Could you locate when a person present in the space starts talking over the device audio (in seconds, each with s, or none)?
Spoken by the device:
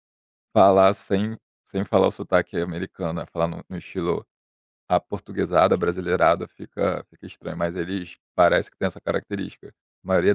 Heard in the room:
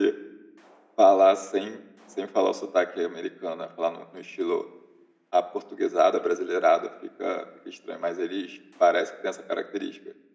none